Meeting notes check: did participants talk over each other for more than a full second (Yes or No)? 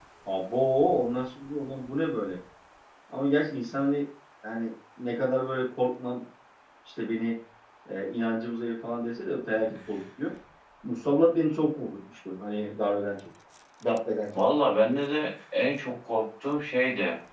No